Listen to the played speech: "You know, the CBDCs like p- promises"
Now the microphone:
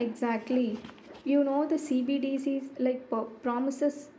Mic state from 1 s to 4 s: echo only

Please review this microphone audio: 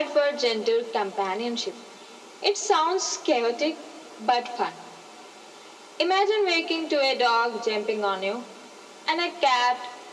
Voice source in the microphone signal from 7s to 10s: echo only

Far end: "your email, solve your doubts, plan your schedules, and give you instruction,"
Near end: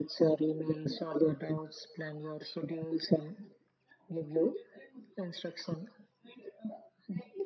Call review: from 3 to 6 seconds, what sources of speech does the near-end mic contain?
echo only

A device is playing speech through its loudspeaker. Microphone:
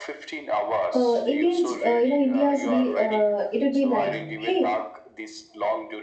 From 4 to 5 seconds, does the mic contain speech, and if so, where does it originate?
both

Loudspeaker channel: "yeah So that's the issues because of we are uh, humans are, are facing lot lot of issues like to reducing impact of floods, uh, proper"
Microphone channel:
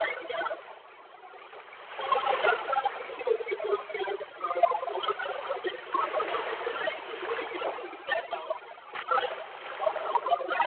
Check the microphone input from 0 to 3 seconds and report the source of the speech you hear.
echo only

